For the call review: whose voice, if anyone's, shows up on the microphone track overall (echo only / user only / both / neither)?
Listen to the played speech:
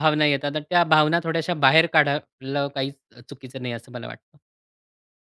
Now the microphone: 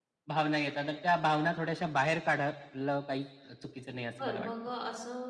both